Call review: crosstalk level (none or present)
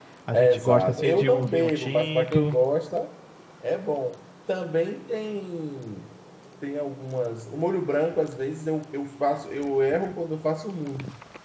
present